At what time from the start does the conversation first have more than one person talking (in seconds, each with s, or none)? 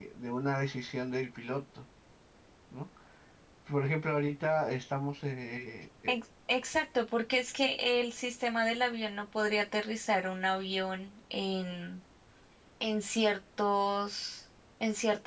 none